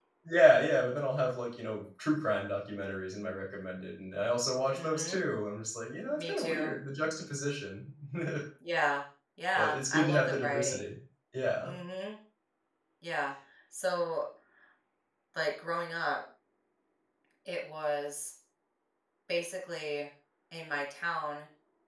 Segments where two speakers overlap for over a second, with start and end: 9.6-10.8

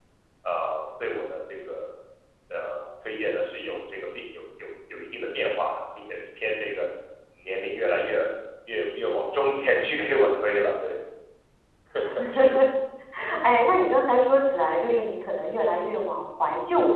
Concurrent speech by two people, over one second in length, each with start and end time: none

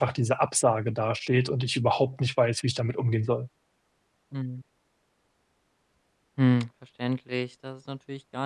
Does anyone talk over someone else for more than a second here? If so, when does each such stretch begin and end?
none

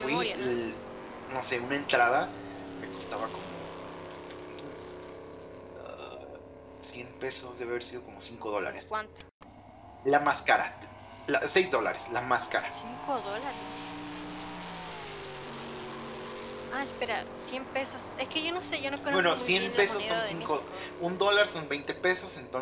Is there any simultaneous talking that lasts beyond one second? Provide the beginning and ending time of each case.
19.1-20.9

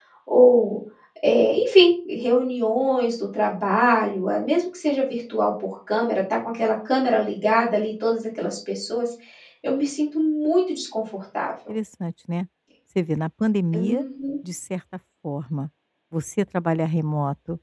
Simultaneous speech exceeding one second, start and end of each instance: none

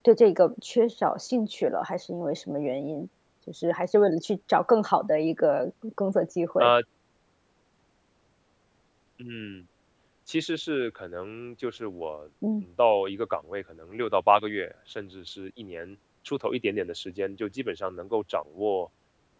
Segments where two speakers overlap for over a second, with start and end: none

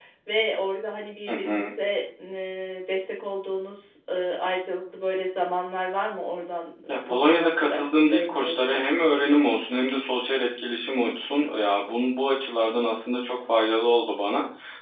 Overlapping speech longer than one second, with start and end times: 7.1-8.8

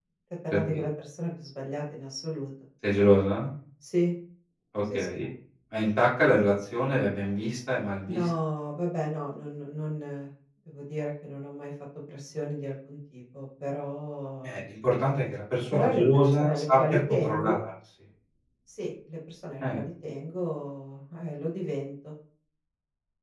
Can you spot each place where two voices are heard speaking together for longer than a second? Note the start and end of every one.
15.7-17.6

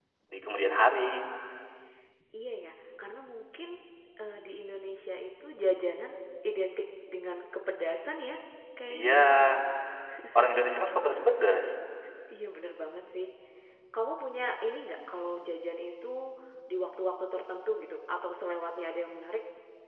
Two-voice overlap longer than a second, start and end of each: none

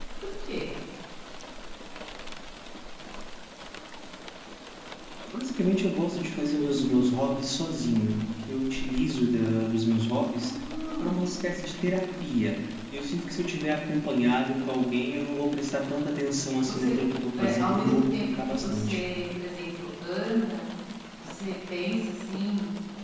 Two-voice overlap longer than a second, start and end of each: 17.4-19.0

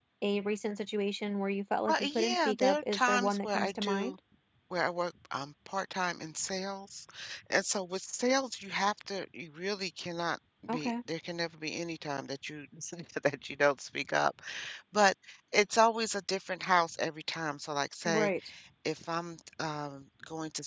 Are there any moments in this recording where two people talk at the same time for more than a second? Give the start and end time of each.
1.9-4.1

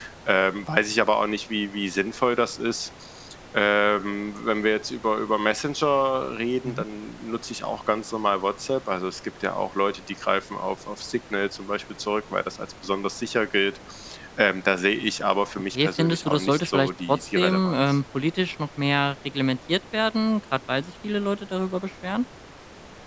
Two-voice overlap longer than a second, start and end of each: 15.7-17.8

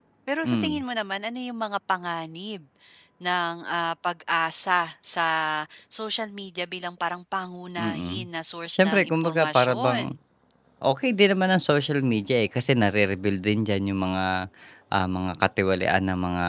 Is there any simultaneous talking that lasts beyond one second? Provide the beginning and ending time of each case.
8.7-10.0

